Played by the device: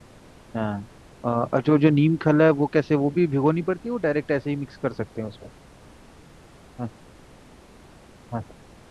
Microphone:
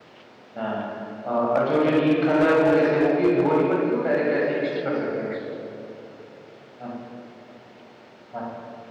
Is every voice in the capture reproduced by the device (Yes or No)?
No